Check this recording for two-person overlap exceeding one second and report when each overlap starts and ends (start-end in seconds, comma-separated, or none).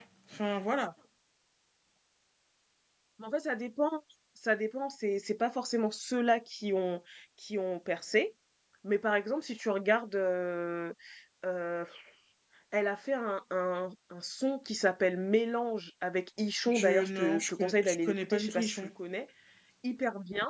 16.7-18.9